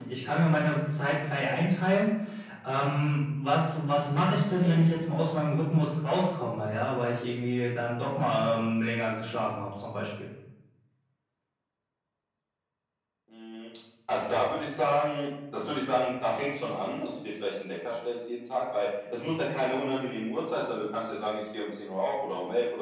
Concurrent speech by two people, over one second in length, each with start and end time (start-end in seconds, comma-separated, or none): none